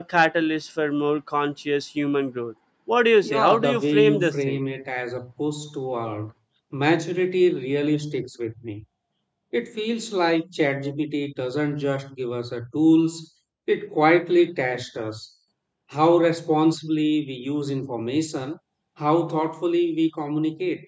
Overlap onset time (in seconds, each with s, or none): 3.2 s